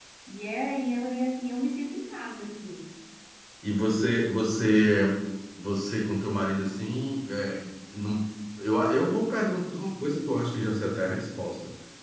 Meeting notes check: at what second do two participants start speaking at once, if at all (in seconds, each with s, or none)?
none